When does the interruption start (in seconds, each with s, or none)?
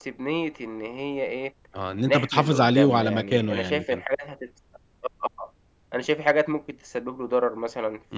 2.0 s